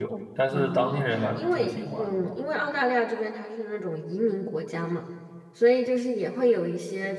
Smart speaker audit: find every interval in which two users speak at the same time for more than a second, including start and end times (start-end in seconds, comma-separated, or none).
0.5-2.4